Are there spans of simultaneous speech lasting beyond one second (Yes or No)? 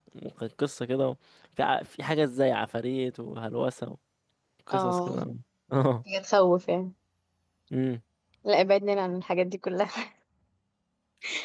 No